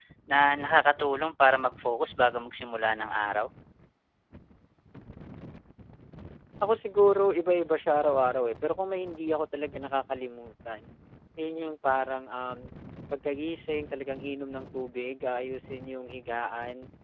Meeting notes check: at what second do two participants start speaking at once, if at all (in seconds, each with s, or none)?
none